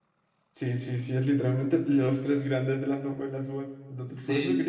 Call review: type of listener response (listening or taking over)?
taking over